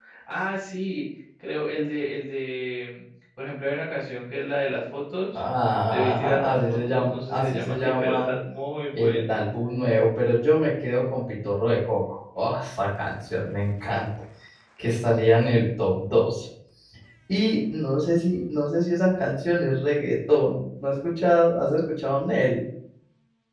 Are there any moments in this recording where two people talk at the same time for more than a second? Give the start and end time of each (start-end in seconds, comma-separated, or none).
5.9-8.3